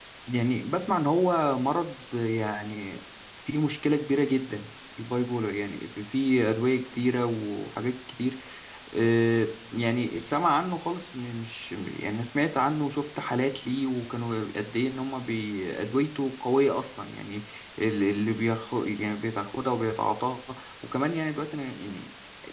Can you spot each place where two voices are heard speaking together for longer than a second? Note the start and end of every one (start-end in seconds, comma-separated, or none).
none